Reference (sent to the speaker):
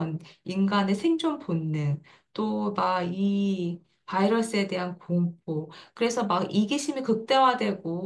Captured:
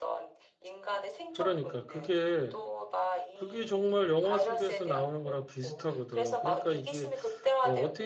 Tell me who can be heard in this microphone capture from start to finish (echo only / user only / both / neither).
both